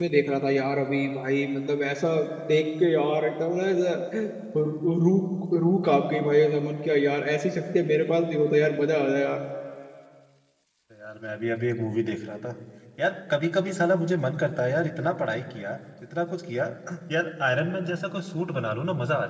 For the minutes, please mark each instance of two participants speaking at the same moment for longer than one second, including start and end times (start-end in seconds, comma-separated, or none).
none